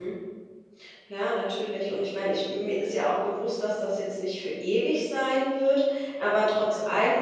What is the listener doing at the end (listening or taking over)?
listening